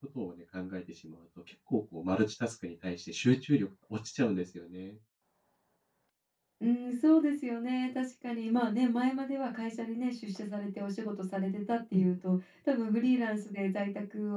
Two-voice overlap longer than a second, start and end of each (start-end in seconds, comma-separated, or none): none